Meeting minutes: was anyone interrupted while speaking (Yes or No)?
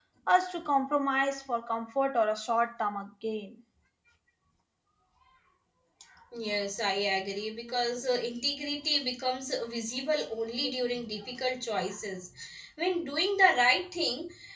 No